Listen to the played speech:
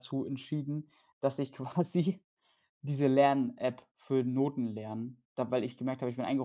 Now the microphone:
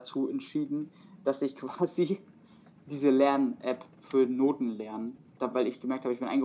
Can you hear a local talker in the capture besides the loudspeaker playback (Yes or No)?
No